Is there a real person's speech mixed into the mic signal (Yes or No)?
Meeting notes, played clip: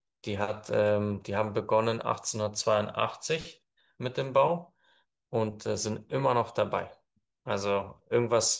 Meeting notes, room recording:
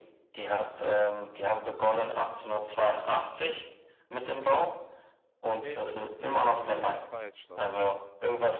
Yes